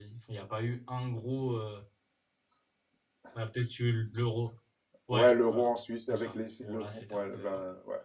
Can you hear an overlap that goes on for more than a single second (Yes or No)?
Yes